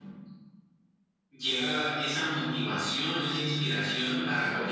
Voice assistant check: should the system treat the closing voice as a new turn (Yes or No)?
No